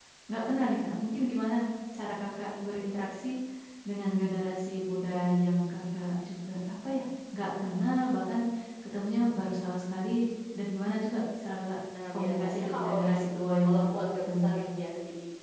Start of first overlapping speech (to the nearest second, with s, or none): 12 s